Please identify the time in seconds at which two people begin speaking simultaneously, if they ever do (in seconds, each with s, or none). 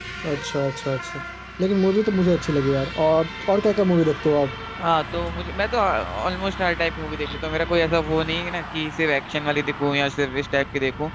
none